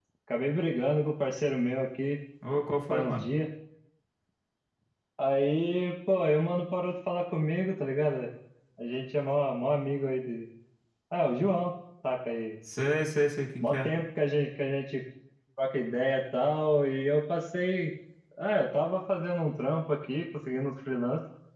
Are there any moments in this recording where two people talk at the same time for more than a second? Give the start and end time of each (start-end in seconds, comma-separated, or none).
none